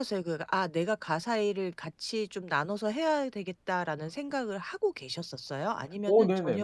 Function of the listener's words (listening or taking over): taking over